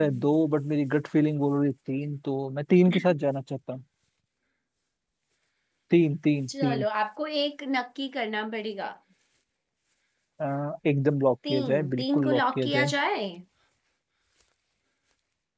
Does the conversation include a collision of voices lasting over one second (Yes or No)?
Yes